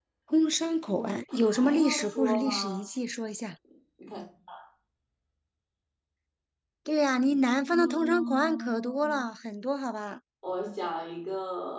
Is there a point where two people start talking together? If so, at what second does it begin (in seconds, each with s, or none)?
1.3 s